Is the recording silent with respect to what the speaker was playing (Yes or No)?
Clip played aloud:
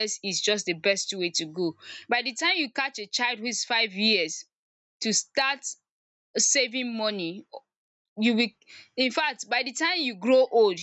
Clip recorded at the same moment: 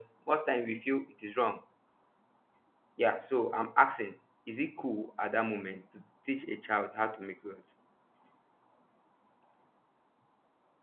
Yes